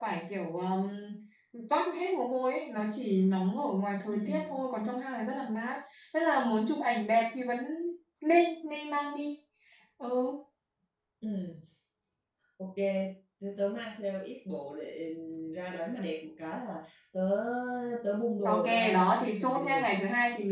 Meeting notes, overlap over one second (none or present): present